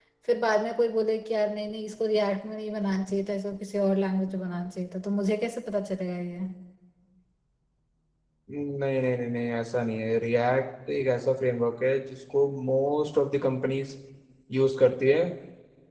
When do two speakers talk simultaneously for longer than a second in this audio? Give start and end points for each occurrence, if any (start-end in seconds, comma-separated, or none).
none